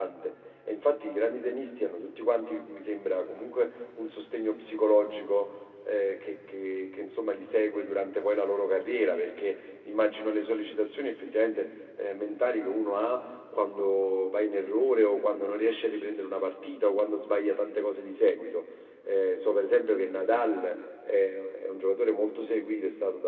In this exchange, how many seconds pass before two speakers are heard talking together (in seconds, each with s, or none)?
none